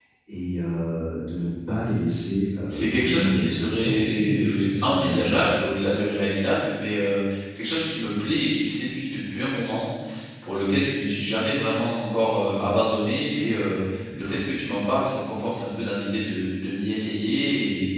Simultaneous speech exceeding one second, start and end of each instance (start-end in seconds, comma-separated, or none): 2.7-5.6